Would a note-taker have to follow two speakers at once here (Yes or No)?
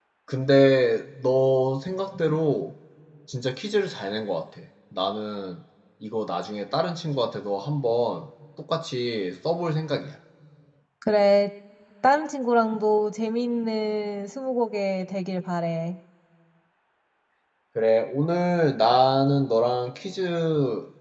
No